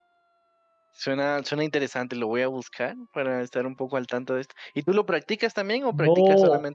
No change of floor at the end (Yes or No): No